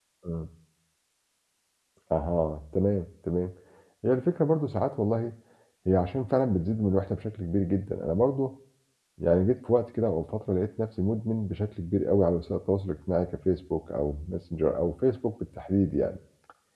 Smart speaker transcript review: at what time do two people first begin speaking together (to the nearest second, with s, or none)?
none